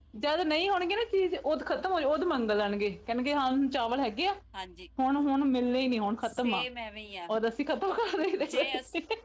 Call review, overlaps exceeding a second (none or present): none